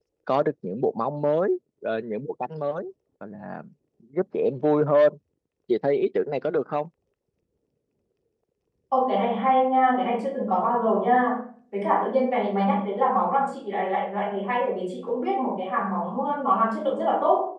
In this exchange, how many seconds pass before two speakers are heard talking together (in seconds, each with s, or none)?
none